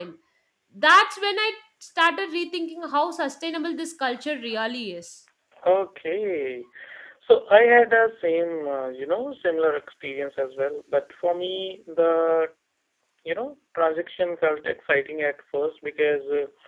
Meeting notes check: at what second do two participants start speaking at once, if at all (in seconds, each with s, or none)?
none